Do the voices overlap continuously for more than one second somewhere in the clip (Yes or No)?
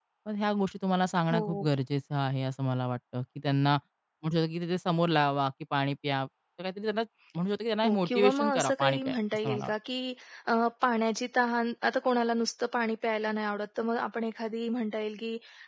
Yes